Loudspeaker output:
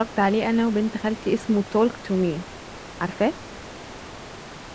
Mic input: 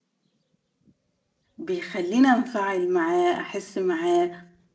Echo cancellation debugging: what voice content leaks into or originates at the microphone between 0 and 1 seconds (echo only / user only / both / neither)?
neither